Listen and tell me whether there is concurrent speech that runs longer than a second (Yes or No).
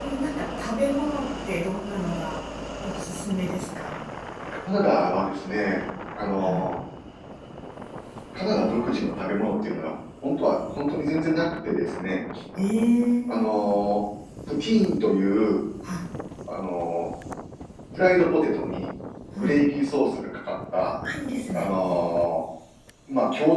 No